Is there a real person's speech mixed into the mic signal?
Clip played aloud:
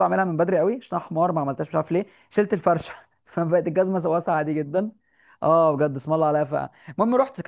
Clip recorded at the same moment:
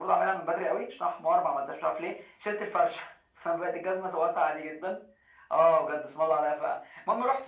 No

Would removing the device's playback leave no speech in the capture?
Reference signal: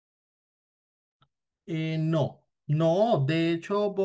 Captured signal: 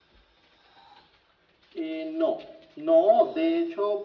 Yes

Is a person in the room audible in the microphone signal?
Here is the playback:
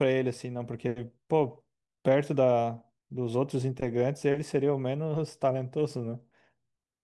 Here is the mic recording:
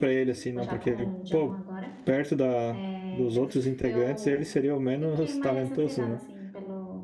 Yes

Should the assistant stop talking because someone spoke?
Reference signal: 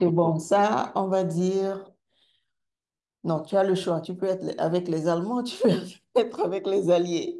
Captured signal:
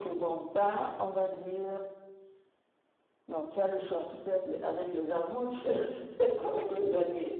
No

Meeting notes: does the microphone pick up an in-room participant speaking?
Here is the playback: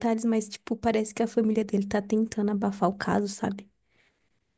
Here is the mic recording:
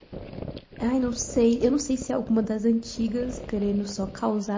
Yes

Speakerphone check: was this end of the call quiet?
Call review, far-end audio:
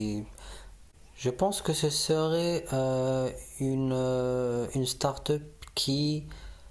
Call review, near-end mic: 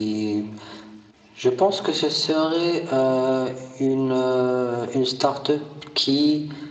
Yes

